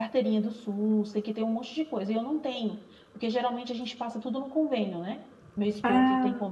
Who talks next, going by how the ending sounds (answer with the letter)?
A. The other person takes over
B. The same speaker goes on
B